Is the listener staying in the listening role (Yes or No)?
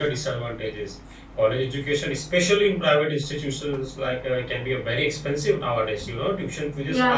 Yes